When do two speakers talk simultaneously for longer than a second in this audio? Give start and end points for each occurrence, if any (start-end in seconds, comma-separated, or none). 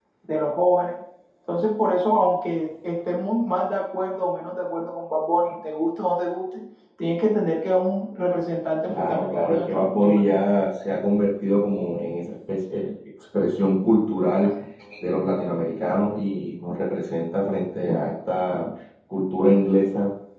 8.9-10.2